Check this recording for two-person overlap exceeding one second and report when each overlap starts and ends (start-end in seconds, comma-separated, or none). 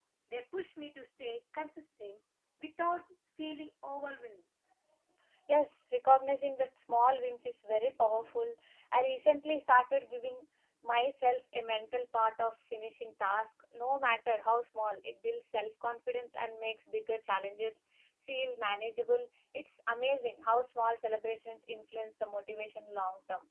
none